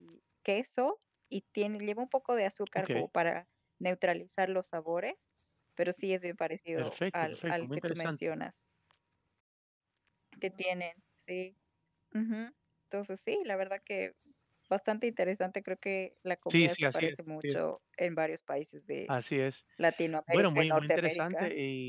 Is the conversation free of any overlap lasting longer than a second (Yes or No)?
No